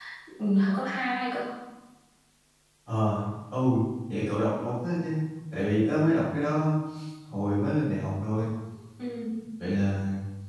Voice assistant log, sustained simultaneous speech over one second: none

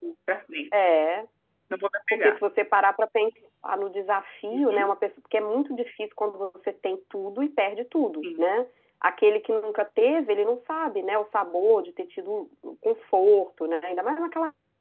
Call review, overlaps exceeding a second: none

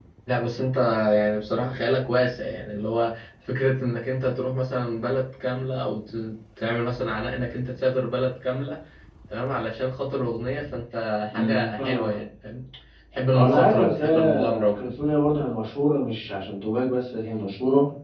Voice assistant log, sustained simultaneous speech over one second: present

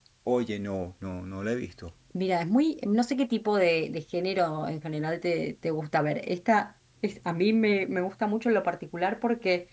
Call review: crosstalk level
none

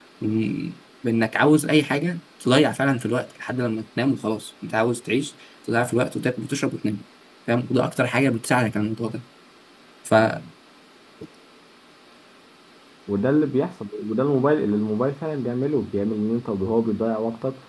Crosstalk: none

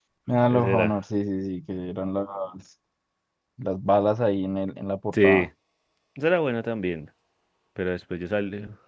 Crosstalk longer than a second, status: none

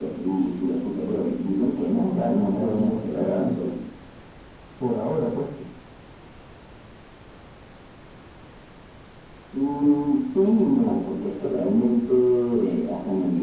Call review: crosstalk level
present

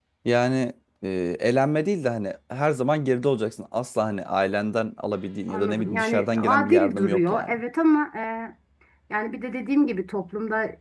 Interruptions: present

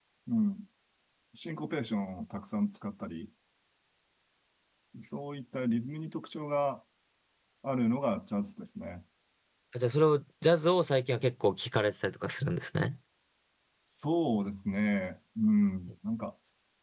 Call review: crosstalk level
none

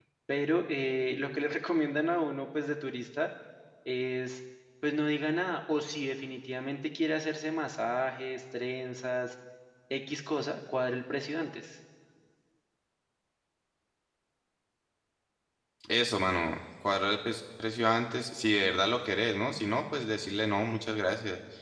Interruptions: none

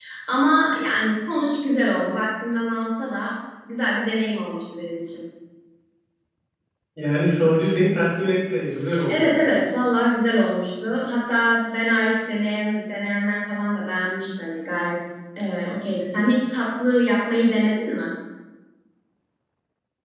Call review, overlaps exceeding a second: none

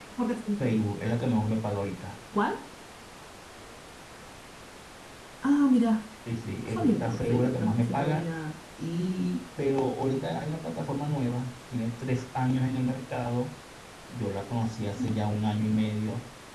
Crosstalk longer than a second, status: present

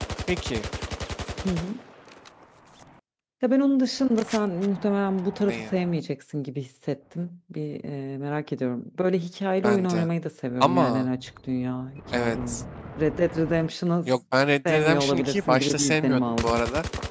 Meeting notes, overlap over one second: present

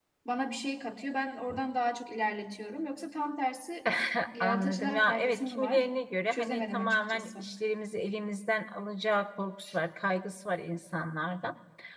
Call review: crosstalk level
present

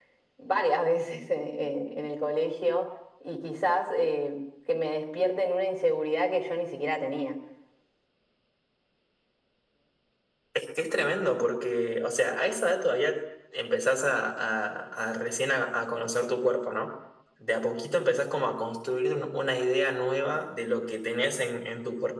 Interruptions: none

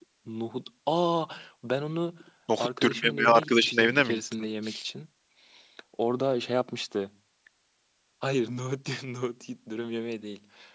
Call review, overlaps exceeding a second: present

